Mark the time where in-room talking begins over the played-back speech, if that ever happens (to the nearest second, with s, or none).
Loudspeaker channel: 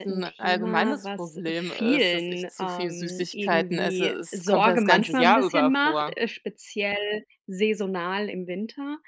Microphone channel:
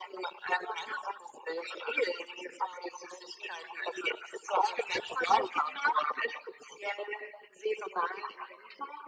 none